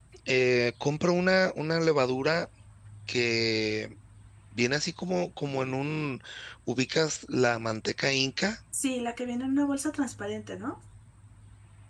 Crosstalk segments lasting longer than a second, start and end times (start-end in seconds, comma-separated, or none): none